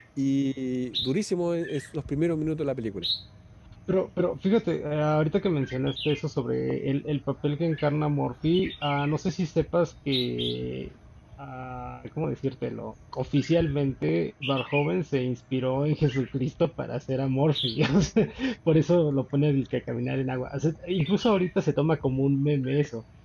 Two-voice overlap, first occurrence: none

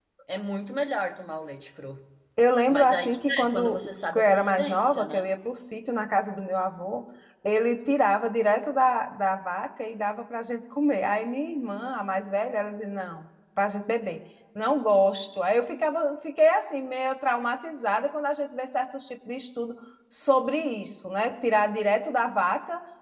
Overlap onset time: 3 s

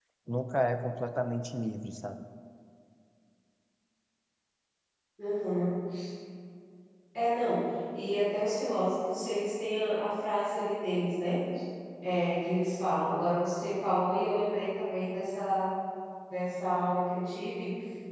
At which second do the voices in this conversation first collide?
none

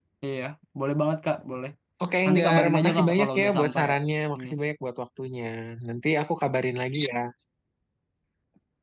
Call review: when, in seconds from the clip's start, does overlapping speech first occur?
2 s

